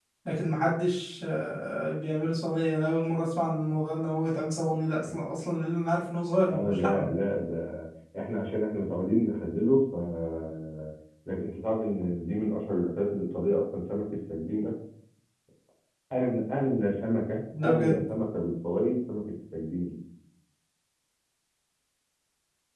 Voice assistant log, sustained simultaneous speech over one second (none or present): none